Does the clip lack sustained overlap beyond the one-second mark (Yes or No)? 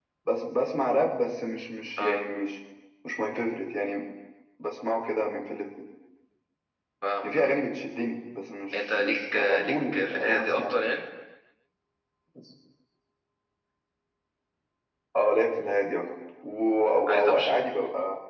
No